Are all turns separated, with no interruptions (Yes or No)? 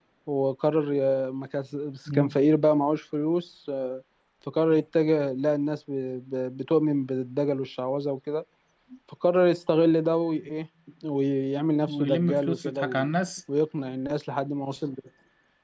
No